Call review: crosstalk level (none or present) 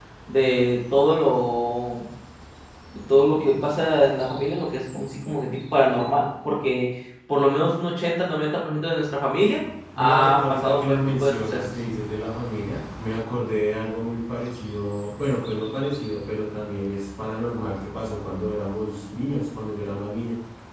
present